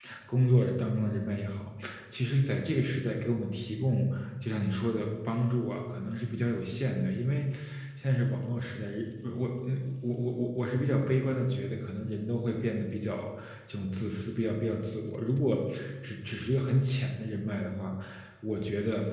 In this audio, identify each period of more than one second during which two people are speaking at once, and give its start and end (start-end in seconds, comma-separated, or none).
none